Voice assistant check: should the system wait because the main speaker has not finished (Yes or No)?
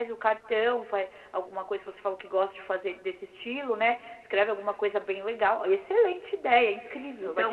No